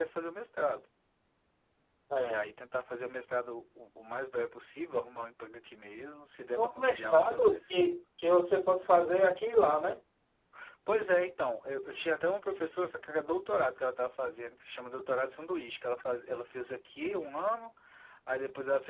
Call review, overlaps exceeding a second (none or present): present